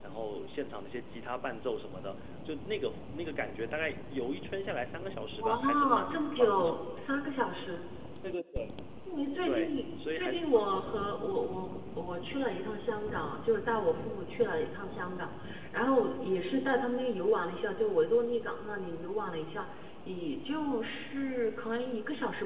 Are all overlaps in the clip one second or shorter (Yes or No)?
No